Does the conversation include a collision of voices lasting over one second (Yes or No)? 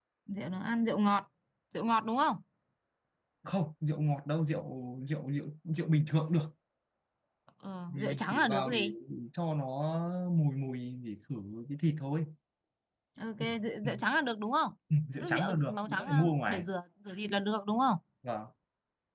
Yes